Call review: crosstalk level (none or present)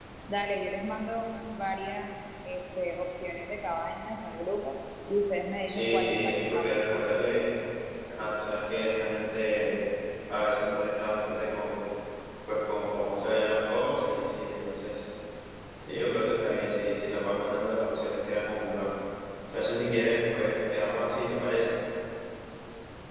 present